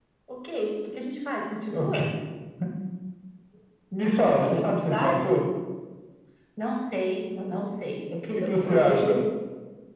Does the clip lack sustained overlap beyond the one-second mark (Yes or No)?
No